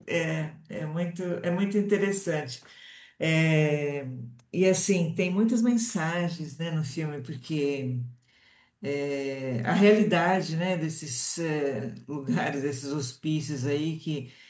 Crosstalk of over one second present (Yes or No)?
No